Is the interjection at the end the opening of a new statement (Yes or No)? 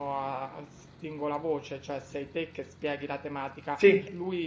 No